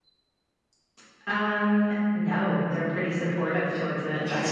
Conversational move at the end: listening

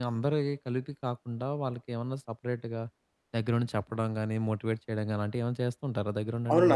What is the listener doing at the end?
taking over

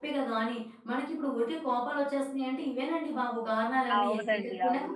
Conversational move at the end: taking over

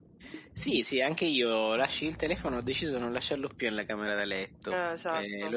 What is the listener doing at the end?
listening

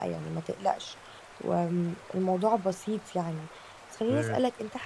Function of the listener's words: listening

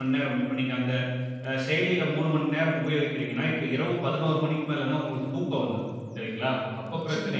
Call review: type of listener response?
listening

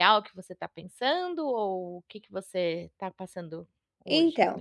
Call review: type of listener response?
taking over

